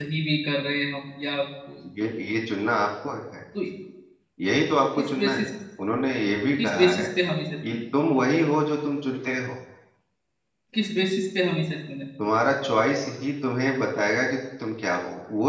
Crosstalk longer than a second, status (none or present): none